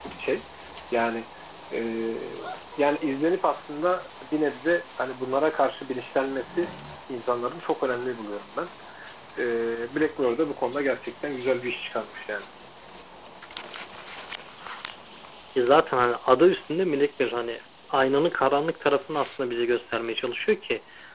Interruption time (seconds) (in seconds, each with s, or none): none